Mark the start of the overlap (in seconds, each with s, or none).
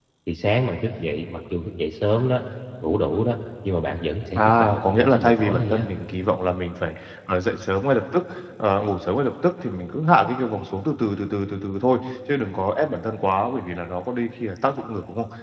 4.3 s